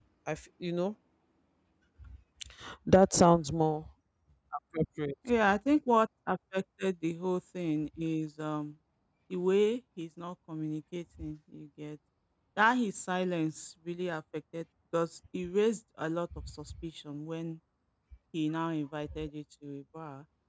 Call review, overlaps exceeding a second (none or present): none